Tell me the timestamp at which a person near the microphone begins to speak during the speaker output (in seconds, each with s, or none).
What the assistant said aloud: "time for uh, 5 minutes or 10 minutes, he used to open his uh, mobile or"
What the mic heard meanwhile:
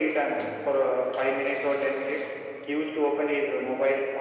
none